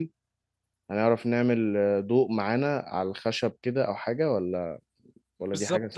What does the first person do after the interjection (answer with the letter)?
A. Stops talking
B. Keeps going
A